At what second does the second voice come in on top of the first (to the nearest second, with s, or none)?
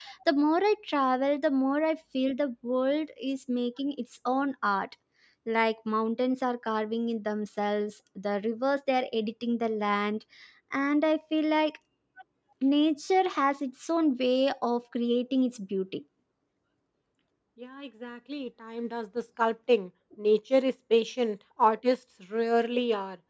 none